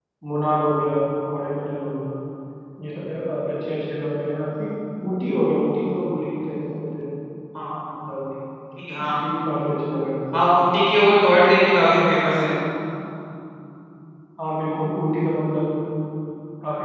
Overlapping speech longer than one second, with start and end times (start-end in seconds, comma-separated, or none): none